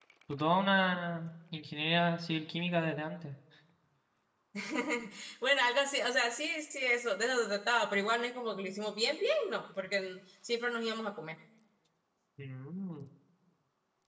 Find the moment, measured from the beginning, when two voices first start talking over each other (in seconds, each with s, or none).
none